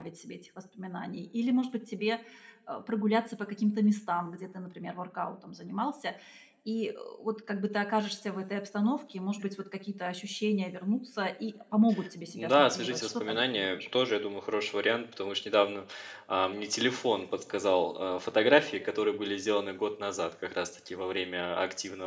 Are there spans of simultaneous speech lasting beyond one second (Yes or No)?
Yes